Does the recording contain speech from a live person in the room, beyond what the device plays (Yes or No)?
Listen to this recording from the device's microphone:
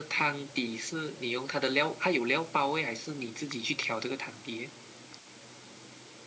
No